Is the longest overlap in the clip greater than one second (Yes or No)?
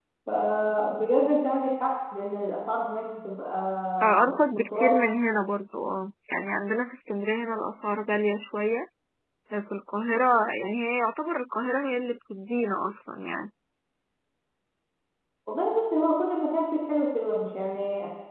No